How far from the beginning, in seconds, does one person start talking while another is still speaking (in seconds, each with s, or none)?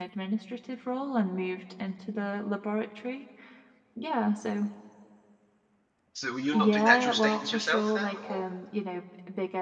6.5 s